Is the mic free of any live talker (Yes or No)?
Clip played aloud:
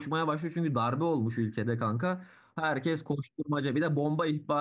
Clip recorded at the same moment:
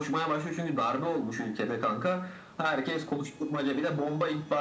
Yes